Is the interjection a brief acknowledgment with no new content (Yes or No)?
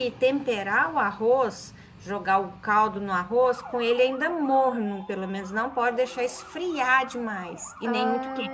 No